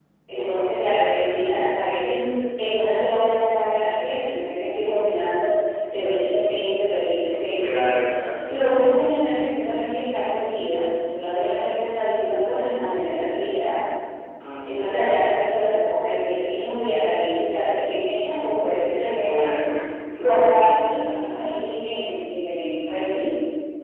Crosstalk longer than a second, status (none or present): present